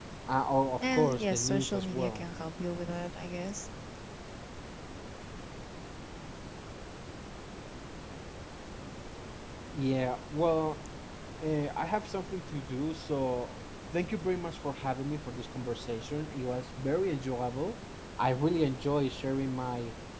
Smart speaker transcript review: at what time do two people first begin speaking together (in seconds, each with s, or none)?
0.8 s